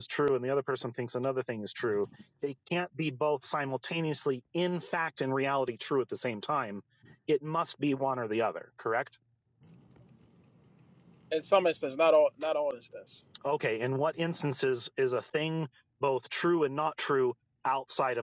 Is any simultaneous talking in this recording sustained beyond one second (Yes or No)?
No